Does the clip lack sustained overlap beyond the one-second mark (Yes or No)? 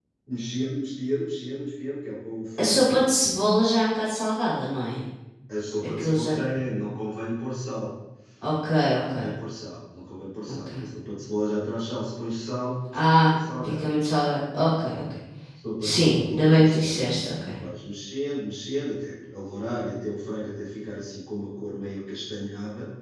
No